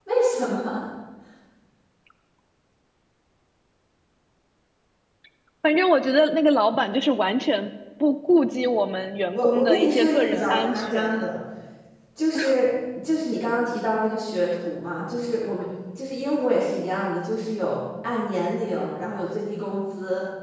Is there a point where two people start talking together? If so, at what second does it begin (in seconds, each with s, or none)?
9.3 s